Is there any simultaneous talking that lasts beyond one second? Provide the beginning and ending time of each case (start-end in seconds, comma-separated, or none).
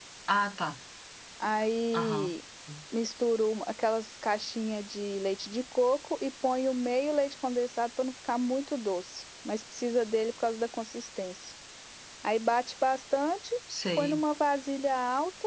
none